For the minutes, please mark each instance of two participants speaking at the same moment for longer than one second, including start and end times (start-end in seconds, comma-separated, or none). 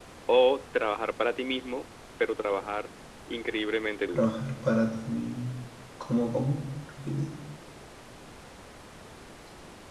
none